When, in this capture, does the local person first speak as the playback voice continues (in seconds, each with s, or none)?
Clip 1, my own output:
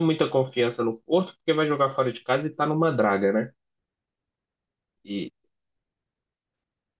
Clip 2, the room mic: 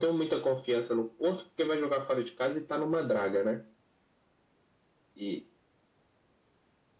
none